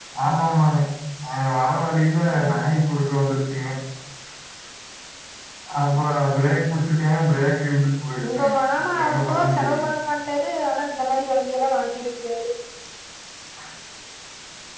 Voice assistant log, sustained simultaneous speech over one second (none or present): present